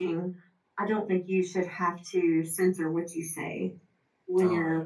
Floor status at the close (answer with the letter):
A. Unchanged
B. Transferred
B